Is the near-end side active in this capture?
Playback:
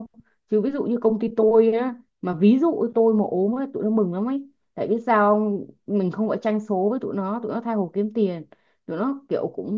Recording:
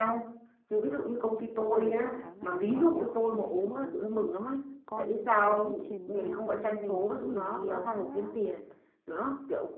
Yes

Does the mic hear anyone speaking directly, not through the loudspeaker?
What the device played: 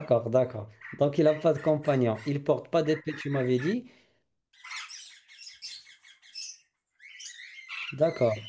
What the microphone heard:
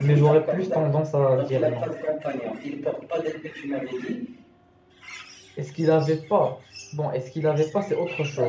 Yes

